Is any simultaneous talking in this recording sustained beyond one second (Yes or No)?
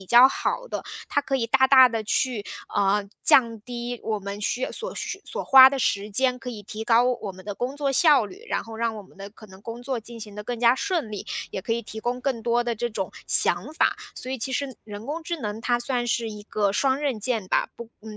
No